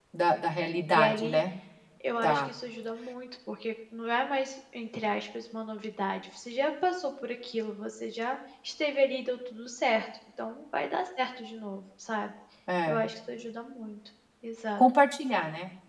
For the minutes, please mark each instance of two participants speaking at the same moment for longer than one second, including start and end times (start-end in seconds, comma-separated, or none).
none